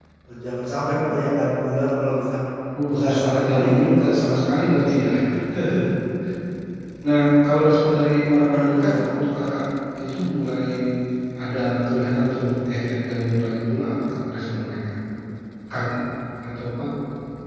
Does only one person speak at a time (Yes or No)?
No